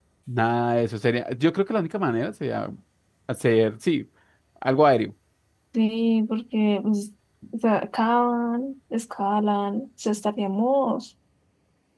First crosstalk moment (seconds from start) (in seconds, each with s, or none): none